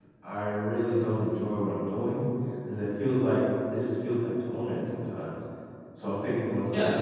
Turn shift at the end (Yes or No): Yes